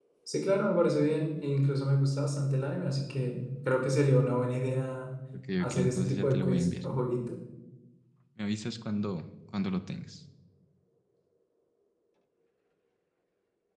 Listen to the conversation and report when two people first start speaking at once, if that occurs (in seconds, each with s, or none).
5.6 s